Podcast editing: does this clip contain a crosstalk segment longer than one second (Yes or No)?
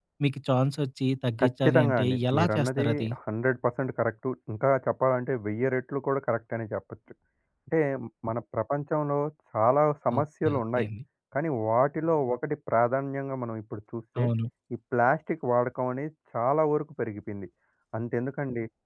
Yes